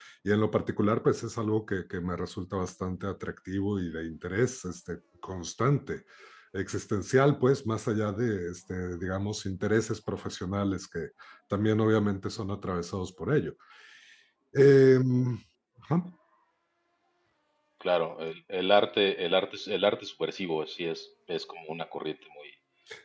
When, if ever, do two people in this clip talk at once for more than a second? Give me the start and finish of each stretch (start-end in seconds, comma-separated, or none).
none